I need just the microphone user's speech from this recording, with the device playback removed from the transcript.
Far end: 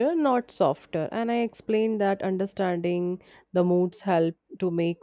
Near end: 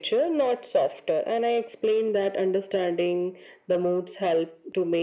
none

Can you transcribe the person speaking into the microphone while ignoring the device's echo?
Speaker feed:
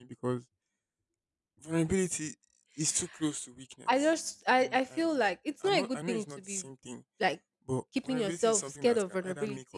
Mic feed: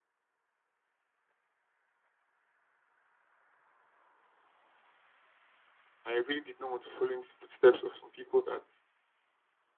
I really did not want to follow in the footsteps of some people that

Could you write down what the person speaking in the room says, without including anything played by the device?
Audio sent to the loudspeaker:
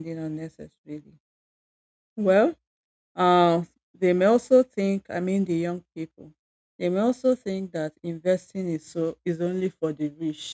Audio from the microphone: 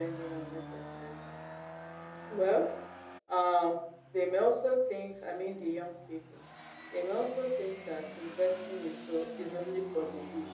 none

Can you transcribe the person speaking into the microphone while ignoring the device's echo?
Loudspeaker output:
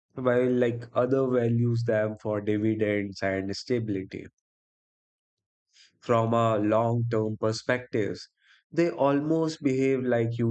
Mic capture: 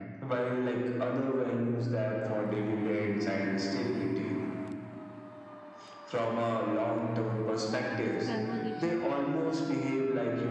this conversation,

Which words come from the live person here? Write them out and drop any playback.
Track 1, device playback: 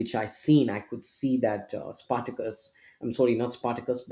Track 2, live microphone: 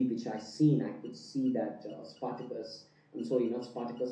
none

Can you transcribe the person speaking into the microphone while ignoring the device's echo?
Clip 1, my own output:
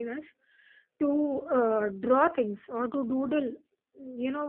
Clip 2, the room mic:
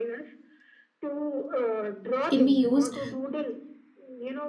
can be used

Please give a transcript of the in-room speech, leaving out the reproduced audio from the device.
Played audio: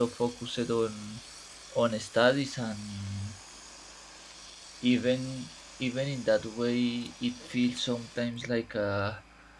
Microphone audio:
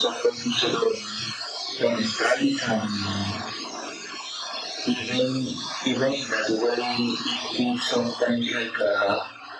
none

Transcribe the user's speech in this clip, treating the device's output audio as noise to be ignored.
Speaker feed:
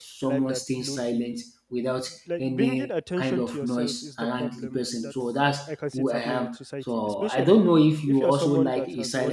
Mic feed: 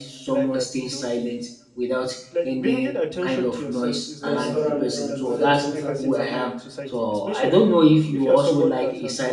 restaurants and other things happening

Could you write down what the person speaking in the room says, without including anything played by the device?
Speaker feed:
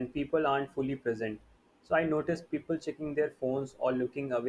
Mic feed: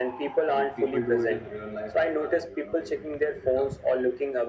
but people do it in real life as well, and you're not able to figure it out.

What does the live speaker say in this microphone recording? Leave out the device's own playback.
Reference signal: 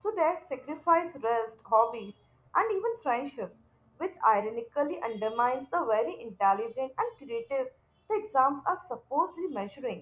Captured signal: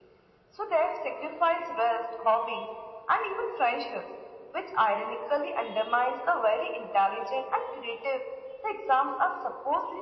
none

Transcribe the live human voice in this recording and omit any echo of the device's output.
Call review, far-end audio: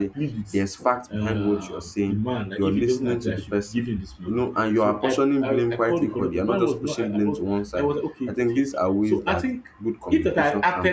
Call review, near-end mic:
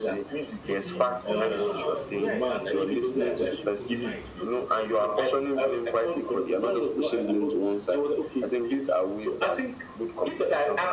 You see, communication matter. The way I sounded there, the way I was so polite

